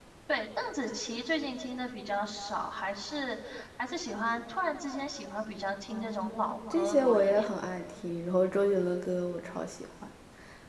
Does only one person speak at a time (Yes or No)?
No